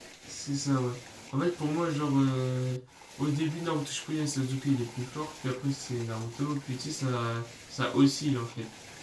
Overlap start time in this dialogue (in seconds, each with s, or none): none